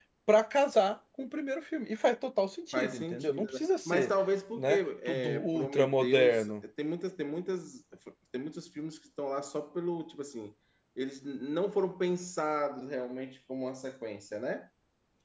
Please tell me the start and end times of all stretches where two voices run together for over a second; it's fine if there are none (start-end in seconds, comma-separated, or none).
2.7-4.1, 4.6-6.5